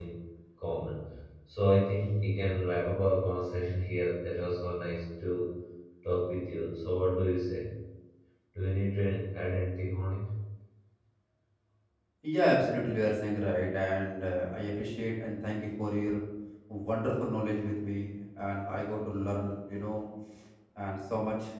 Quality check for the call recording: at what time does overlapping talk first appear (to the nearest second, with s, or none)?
none